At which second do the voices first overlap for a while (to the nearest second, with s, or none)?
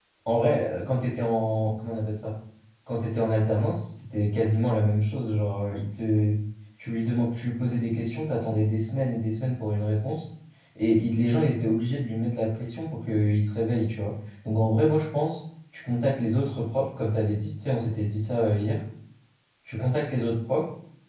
none